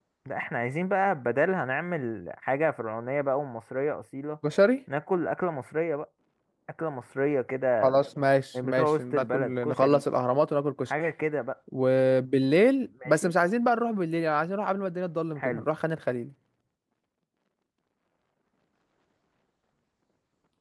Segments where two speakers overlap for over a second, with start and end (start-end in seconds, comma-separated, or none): 8.6-10.0